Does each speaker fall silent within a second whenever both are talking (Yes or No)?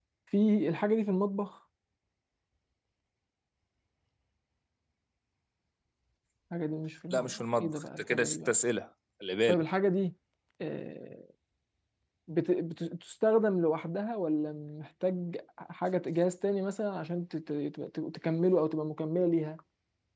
No